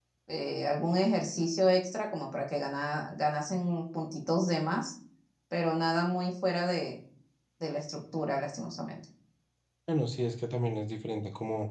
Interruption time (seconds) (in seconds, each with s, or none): none